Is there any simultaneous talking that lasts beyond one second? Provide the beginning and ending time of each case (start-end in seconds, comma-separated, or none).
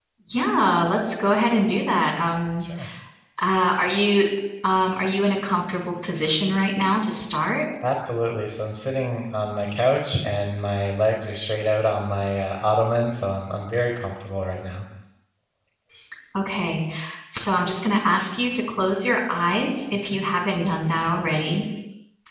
none